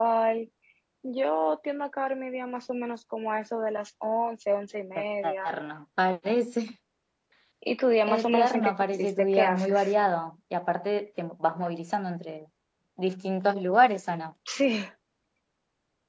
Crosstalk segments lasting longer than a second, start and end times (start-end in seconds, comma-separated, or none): 8.1-9.8